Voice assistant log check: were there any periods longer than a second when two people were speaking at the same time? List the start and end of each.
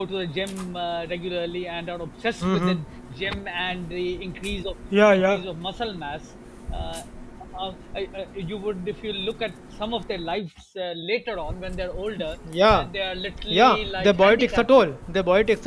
13.5-14.9

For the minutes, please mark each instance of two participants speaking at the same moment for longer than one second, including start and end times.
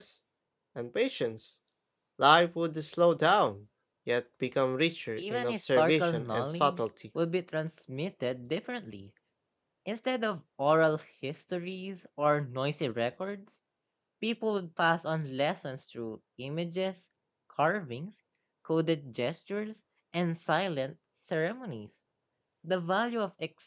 5.2-6.9

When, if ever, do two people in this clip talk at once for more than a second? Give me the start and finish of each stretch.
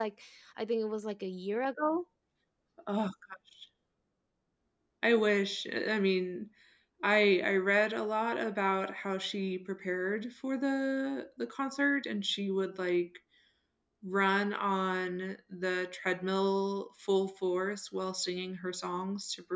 none

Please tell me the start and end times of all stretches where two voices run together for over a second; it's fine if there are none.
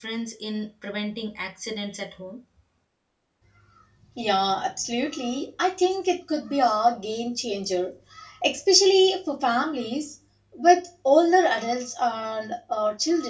none

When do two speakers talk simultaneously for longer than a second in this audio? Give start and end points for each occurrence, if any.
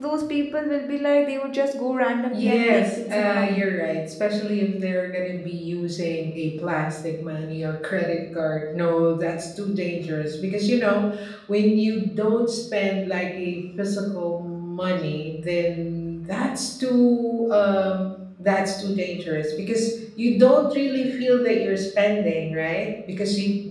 2.3-3.5

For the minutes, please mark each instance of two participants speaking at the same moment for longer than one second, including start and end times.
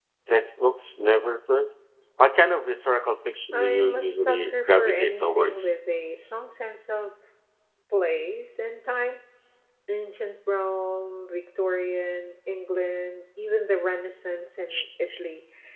3.5-5.7

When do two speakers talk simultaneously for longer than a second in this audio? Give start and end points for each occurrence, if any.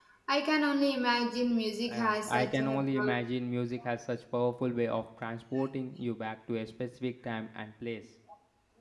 1.9-3.2

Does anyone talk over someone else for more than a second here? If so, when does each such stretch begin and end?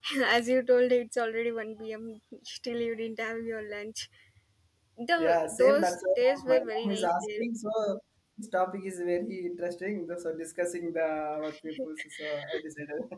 5.2-7.4

